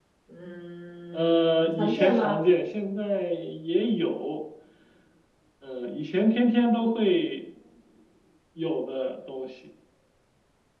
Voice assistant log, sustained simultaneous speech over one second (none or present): present